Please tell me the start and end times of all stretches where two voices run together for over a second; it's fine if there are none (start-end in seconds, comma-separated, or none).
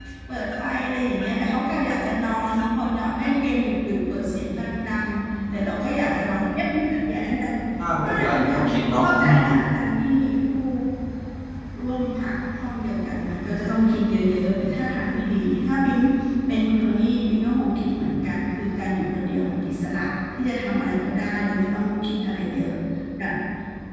8.0-9.4